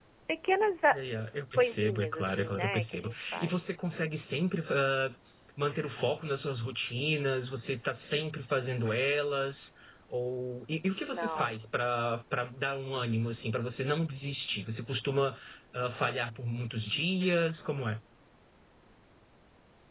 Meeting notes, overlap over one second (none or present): present